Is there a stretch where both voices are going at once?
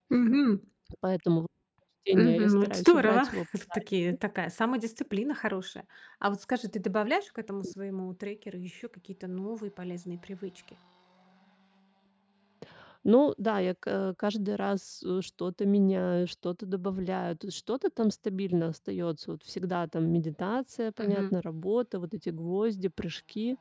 Yes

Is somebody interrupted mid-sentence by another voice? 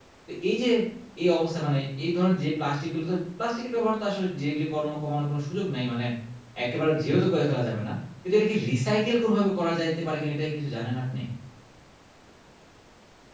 No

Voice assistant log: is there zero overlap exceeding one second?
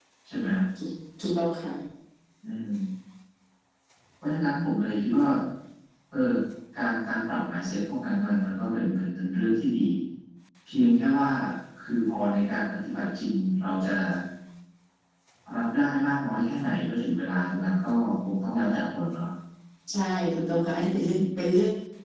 Yes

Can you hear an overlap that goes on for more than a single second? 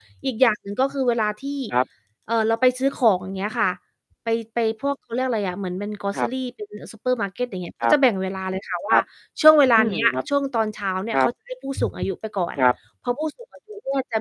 No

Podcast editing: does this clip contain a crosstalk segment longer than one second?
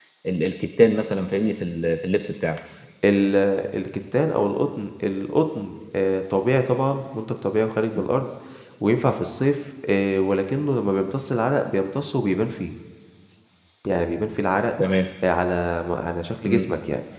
No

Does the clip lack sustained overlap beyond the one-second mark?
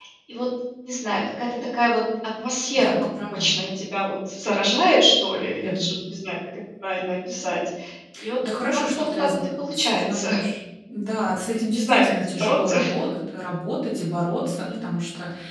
No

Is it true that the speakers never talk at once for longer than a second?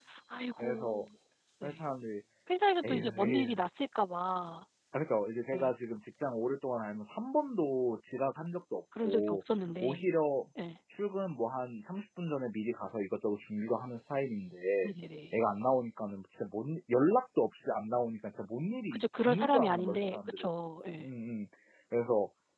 No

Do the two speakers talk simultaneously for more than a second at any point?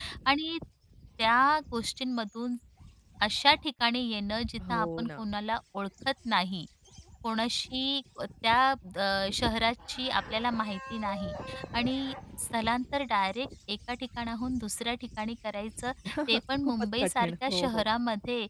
Yes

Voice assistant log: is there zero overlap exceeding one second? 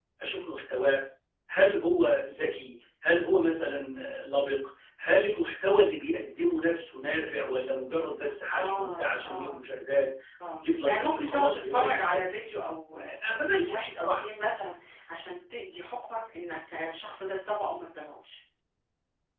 No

